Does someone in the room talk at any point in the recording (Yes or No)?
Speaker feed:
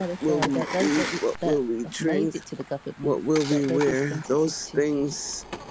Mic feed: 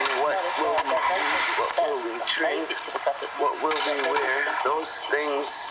No